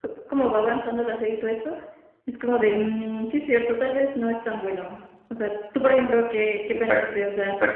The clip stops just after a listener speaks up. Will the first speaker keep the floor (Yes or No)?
No